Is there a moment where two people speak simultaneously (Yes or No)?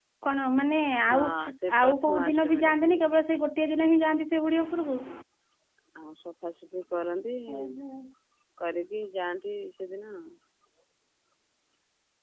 Yes